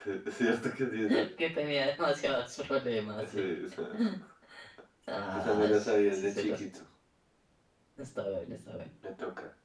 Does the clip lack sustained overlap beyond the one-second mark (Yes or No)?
No